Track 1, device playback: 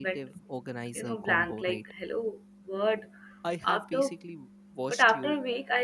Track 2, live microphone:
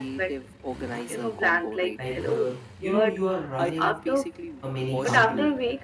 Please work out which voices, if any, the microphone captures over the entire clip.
both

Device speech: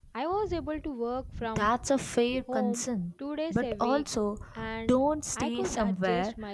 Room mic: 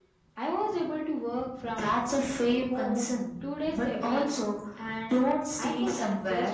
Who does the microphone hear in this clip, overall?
echo only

